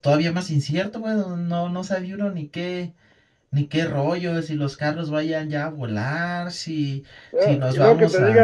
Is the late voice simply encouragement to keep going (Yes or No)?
No